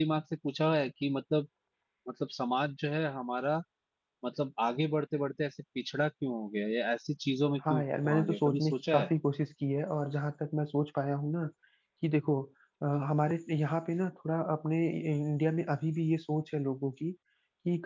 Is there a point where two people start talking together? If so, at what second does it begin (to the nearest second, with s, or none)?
8 s